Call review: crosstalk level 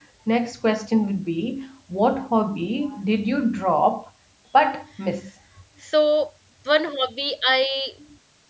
none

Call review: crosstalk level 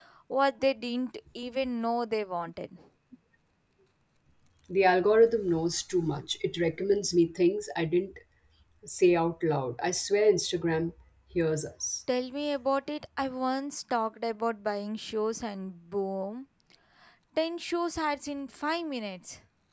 none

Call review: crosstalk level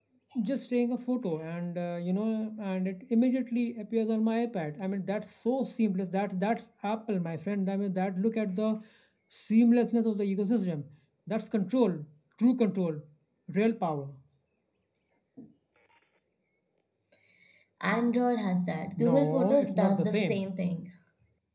present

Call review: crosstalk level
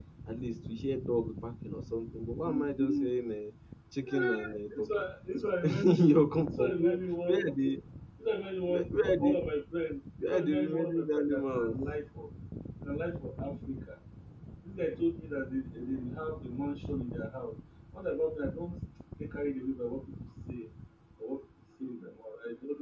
present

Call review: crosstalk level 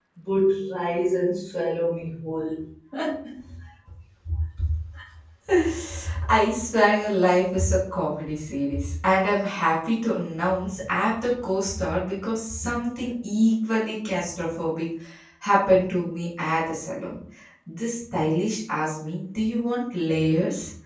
none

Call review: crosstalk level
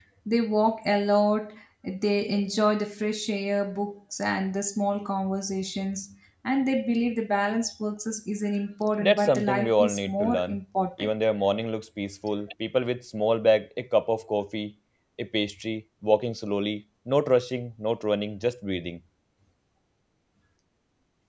present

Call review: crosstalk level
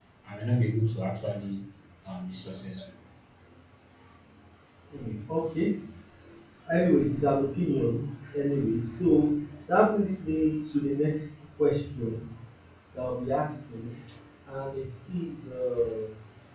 none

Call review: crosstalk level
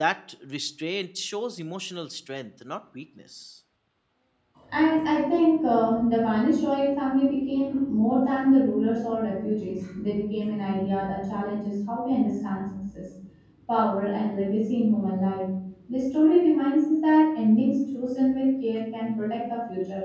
none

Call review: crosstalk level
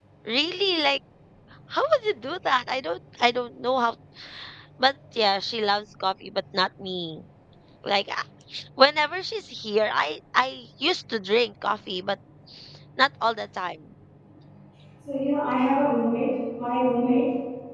none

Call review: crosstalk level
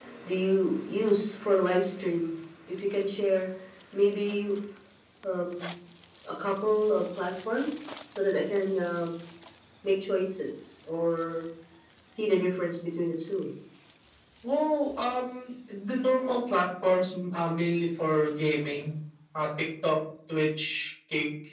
none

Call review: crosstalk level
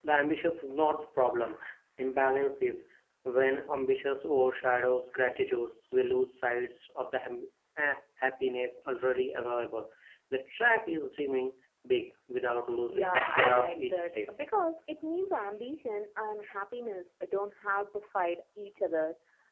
present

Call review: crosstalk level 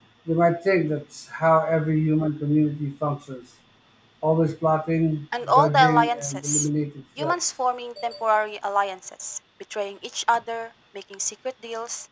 present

